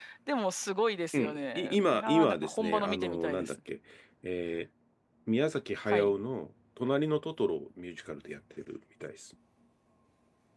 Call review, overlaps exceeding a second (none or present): present